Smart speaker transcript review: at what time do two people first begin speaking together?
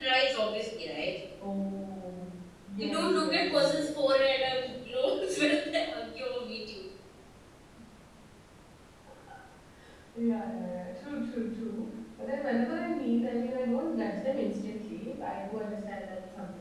2.8 s

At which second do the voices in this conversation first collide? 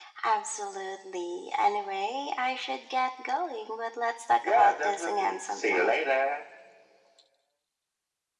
4.4 s

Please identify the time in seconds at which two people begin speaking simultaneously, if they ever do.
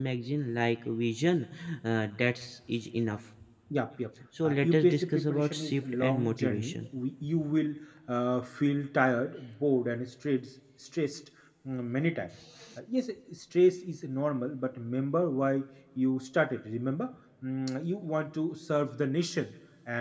4.4 s

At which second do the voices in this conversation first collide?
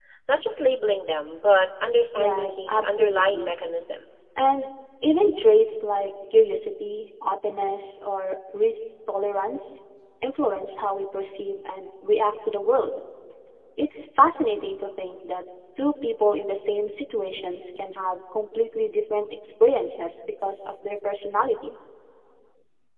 2.1 s

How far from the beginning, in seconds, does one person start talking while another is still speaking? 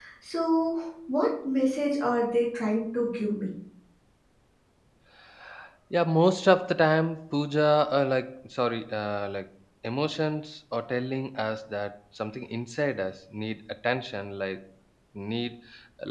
none

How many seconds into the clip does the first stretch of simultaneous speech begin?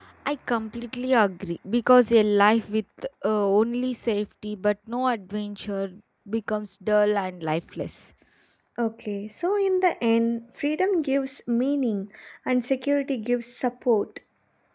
none

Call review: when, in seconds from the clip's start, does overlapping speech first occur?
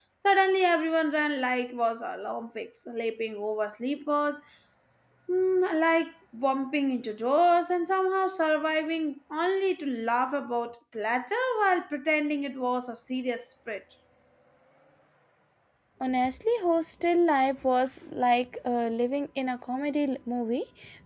none

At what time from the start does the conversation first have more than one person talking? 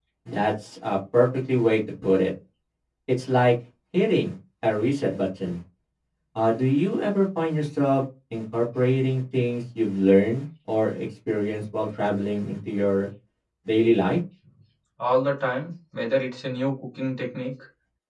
none

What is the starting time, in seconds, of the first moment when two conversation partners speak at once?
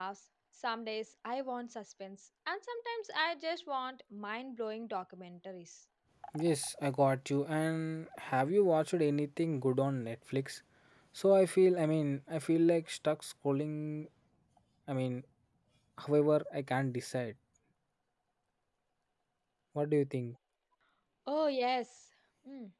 none

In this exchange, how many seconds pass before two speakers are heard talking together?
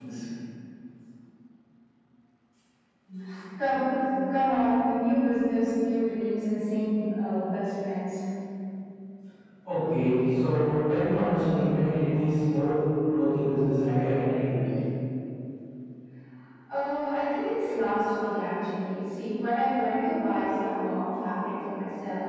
none

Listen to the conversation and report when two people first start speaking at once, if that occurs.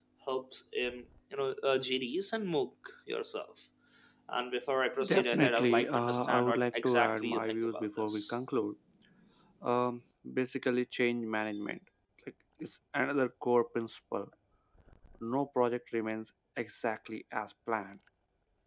5.0 s

